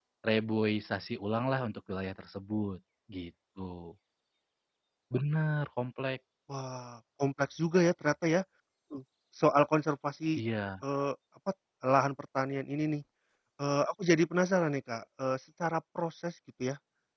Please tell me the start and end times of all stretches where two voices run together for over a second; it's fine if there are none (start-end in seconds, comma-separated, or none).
none